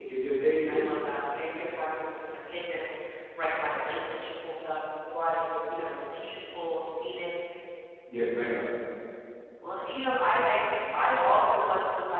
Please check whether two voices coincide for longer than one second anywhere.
No

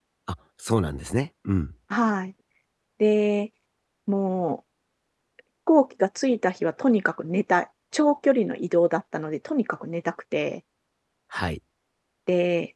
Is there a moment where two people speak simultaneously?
No

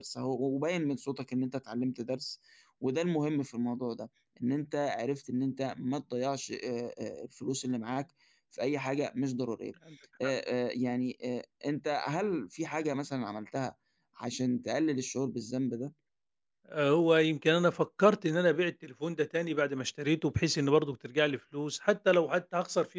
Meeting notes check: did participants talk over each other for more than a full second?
No

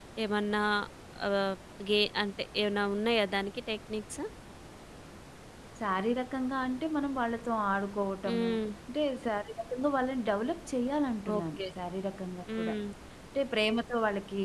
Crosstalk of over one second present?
No

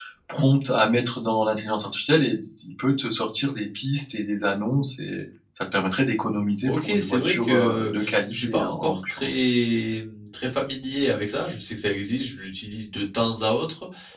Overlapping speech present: Yes, from 6.6 s

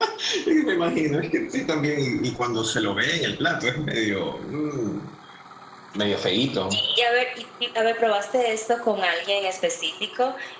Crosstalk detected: No

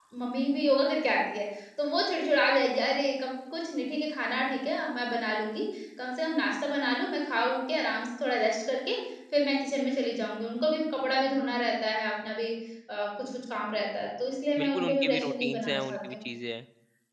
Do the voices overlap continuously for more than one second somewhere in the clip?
Yes, from 14.6 s

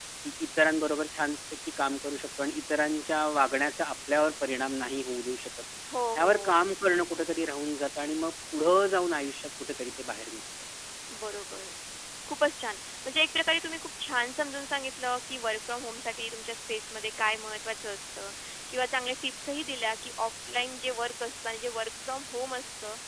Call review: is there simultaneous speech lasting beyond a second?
No

